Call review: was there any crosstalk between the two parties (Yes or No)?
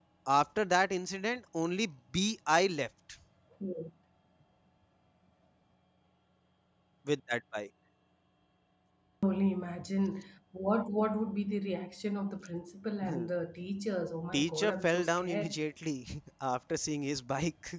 Yes